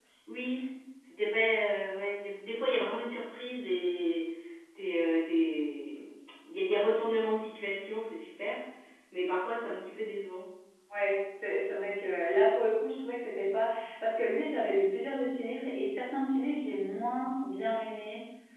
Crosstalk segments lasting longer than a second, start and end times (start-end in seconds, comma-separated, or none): none